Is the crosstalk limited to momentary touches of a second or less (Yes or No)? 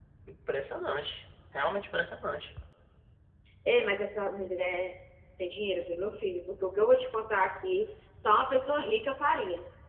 Yes